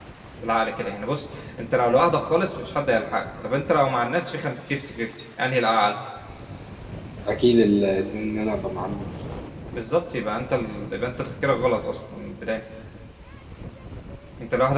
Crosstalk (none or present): none